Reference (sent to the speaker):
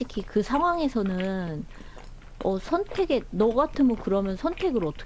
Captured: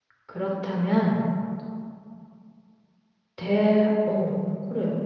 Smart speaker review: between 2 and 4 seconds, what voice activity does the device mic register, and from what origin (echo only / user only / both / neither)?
user only